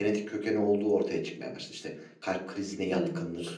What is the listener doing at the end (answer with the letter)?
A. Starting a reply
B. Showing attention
B